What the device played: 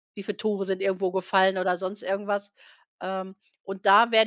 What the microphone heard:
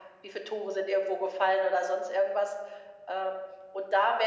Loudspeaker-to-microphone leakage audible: Yes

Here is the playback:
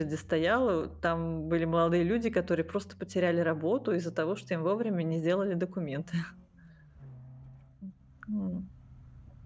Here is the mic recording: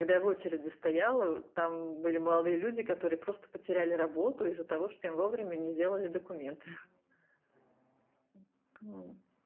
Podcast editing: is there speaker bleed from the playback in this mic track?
Yes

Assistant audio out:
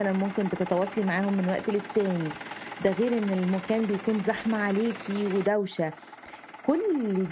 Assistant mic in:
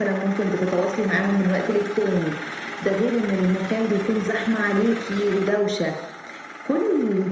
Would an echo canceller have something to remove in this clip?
Yes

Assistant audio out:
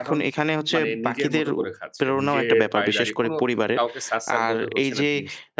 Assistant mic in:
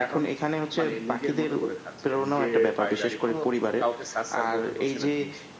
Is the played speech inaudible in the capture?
No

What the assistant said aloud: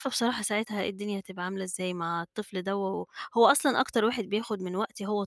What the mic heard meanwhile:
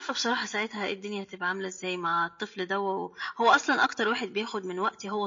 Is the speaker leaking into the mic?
Yes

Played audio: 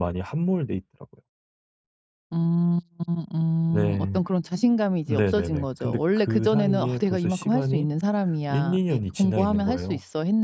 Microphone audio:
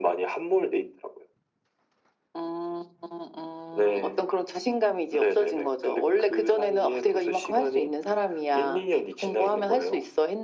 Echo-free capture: No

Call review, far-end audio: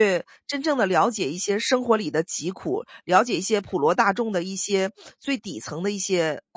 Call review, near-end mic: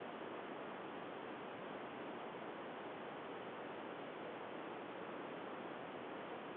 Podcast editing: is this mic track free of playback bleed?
Yes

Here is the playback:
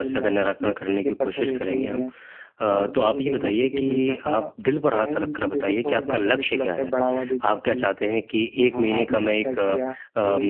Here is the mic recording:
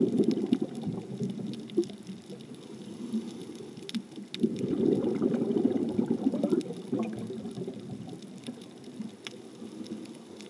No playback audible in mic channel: Yes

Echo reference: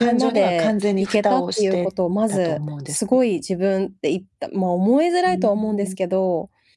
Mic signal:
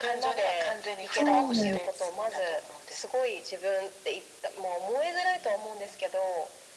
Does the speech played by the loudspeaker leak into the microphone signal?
Yes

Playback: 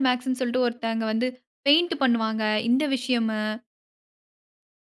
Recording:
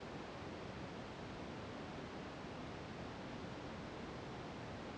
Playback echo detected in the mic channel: No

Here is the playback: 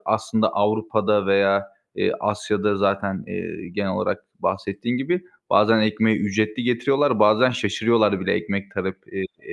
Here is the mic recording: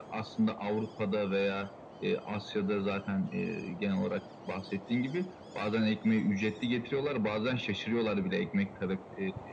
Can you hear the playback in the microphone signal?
Yes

